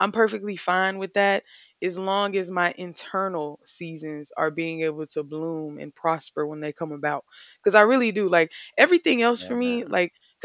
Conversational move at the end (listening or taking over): listening